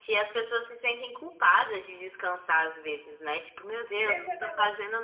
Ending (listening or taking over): taking over